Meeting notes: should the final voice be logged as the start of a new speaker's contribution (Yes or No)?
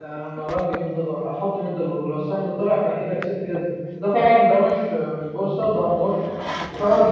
No